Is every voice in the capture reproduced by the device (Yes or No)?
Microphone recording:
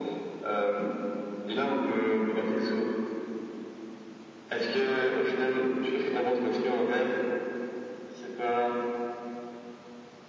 Yes